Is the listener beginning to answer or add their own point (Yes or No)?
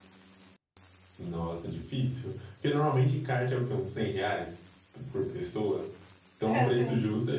No